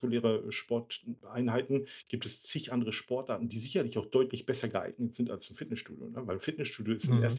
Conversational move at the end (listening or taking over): listening